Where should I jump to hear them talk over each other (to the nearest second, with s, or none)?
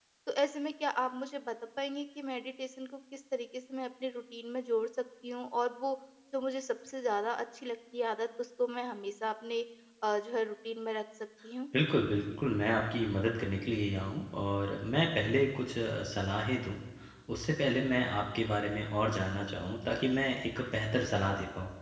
none